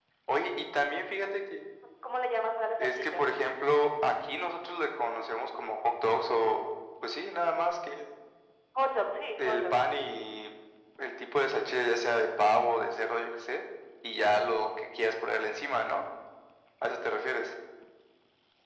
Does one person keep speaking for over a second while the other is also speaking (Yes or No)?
No